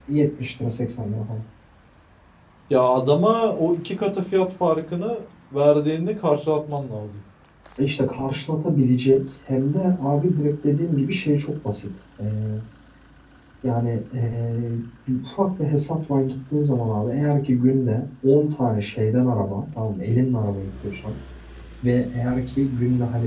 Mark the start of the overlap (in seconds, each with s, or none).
none